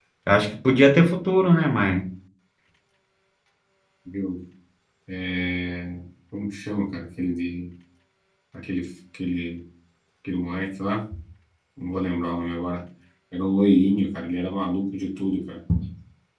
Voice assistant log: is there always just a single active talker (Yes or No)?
Yes